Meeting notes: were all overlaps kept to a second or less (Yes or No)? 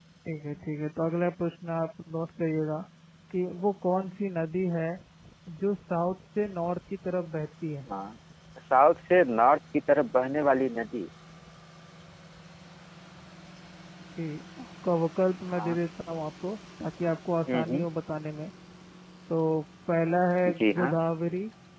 Yes